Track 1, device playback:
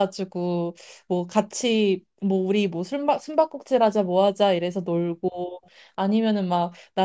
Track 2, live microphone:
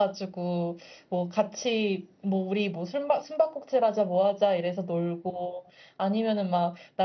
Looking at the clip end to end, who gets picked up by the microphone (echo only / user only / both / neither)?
echo only